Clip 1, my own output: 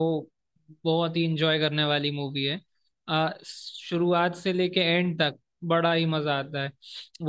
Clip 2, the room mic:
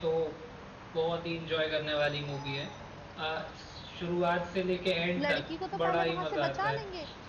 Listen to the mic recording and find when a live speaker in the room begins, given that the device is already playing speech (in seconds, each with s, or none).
5.2 s